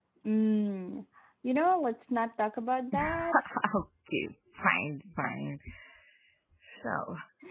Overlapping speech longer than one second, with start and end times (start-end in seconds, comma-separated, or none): none